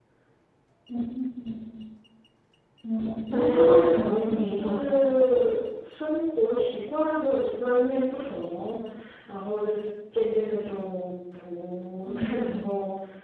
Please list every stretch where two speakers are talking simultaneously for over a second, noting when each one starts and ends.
3.3-5.1

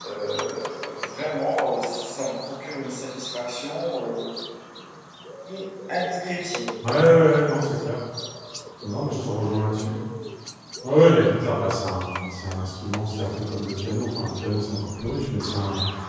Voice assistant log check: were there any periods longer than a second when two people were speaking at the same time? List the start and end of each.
none

